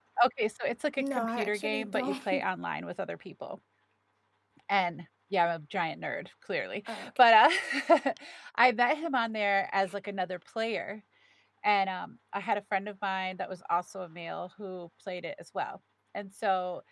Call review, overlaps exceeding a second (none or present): present